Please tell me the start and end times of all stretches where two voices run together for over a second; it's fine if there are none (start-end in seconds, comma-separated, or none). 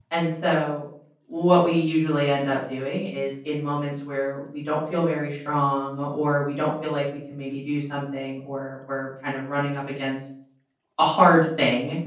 none